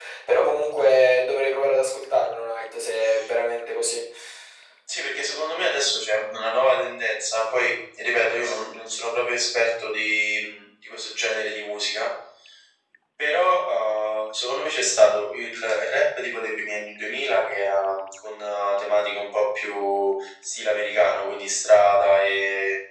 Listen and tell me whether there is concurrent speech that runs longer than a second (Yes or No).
No